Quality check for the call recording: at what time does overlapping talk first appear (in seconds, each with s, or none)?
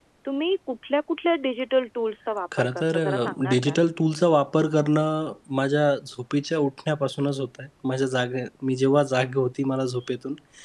2.5 s